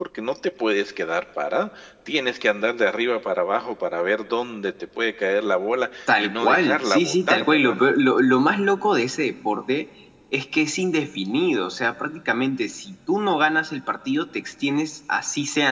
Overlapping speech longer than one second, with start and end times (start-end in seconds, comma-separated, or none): 6.2-7.8